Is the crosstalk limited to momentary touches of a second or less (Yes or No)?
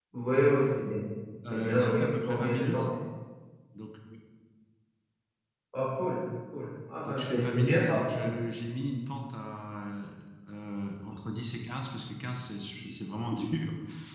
No